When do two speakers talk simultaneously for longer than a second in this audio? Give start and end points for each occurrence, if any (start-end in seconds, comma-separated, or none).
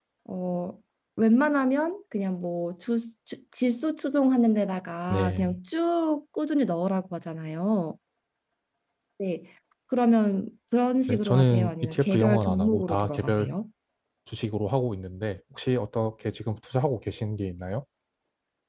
11.1-13.5